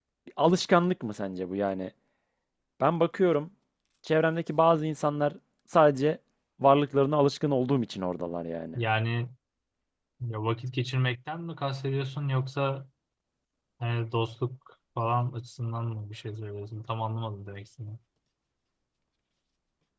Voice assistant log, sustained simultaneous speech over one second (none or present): none